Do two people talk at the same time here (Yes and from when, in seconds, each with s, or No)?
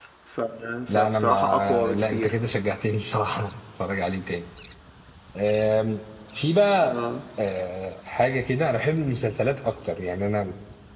Yes, from 1.0 s